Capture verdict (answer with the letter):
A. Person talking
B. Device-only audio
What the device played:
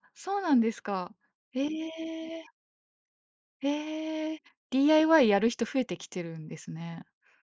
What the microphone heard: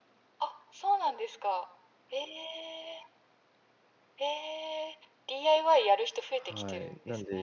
A